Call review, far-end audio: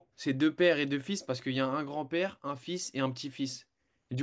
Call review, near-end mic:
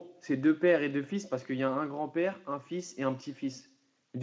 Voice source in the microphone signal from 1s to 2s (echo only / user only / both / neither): echo only